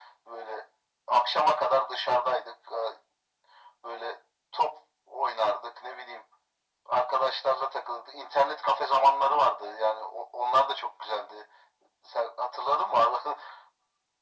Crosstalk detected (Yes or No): No